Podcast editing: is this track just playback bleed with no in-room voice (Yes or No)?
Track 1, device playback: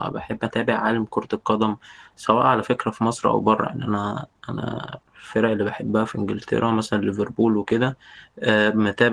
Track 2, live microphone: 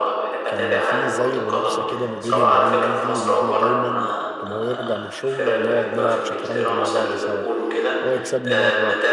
No